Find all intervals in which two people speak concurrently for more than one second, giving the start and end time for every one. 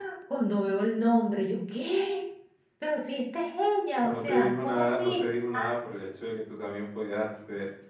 4.0-5.2

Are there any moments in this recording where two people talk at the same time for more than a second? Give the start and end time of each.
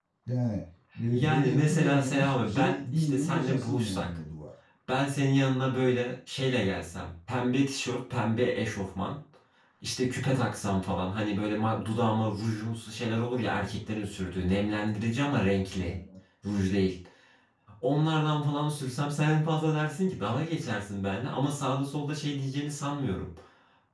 1.1-4.1

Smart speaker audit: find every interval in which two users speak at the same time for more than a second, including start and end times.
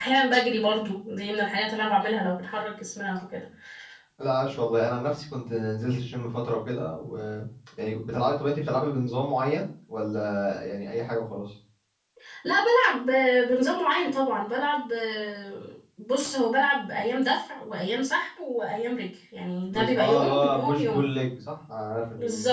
19.7-21.0

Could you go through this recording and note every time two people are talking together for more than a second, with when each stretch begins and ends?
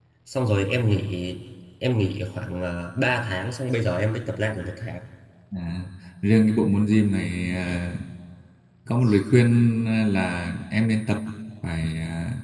none

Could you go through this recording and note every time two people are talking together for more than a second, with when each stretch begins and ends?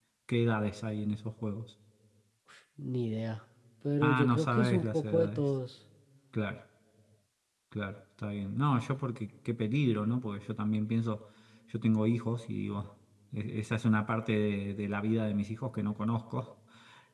4.0-5.4

